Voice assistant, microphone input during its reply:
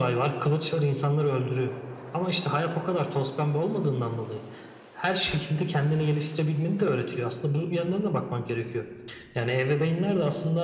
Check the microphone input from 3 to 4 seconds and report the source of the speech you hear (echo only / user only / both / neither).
echo only